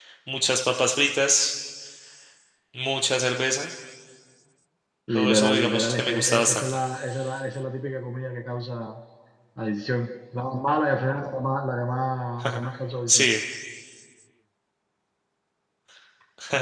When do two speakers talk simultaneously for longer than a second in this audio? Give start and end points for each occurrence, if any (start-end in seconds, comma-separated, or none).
5.2-6.8